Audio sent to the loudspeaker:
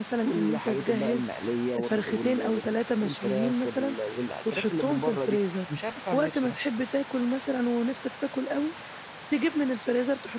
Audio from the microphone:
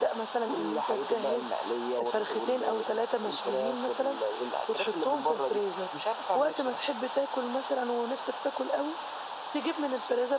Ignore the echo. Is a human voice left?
No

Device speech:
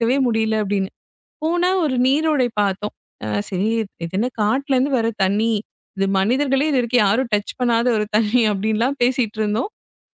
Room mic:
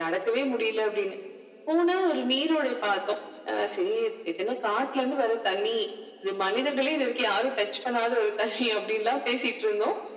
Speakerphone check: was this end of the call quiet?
Yes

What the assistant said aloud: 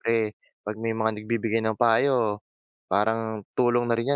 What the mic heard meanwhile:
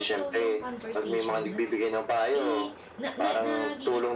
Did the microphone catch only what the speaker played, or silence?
No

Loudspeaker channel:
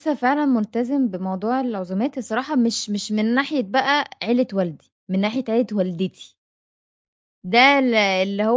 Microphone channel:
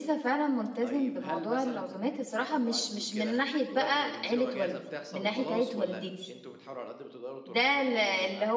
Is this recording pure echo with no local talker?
No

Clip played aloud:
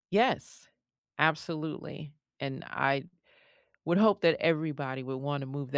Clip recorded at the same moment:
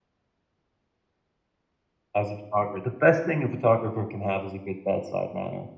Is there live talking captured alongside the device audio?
Yes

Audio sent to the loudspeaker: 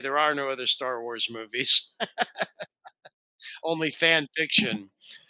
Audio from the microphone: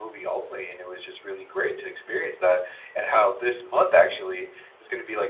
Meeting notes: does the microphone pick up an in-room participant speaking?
Yes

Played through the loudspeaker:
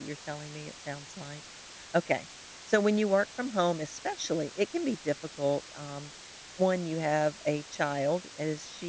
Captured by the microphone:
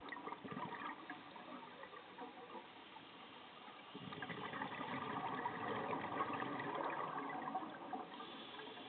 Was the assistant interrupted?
No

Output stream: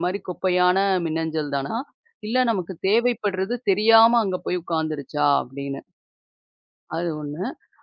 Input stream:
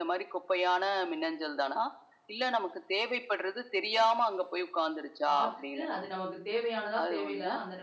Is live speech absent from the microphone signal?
No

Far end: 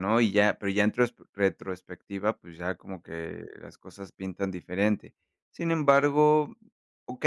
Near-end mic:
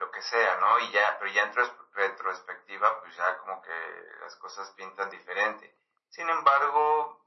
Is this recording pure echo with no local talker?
Yes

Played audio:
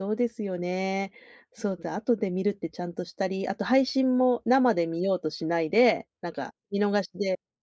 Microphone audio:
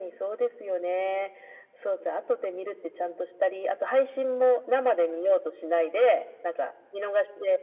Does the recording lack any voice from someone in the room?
Yes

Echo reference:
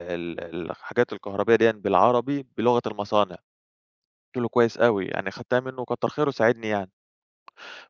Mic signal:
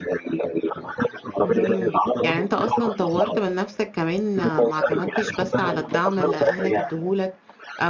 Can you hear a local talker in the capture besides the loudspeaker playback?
Yes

